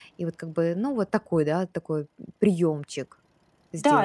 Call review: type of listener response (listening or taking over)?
taking over